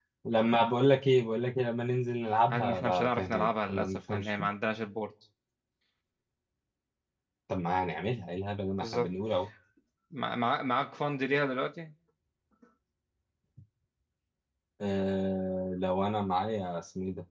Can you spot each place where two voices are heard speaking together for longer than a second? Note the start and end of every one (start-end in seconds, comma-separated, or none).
2.5-4.5